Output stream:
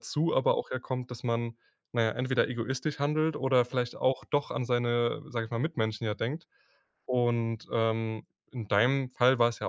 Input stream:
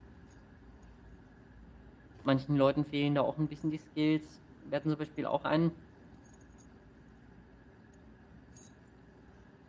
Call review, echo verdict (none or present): none